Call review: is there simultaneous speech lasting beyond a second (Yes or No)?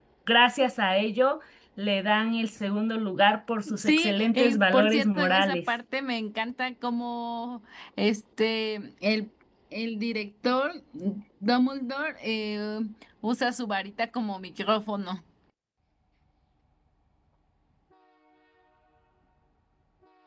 Yes